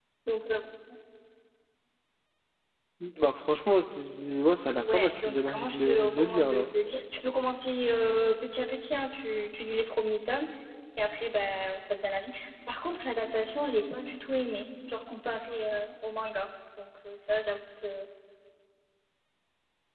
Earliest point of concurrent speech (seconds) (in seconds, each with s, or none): 4.8 s